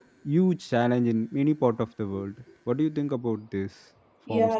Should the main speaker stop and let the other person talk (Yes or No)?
Yes